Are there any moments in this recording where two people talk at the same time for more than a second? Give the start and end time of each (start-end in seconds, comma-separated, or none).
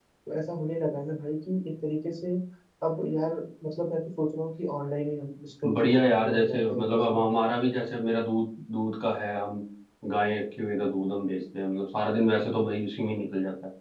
5.7-7.2